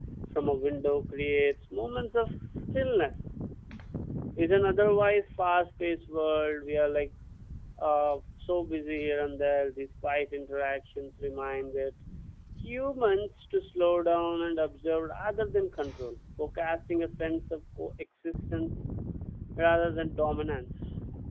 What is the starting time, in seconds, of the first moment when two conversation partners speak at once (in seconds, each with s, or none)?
none